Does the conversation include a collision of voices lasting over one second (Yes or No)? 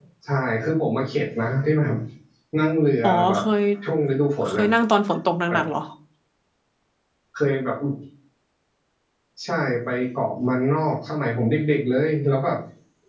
No